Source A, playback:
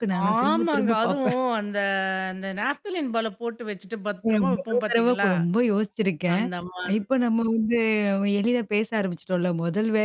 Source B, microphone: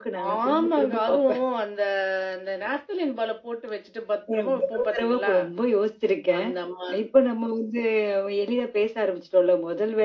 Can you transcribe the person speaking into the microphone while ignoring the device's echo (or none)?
none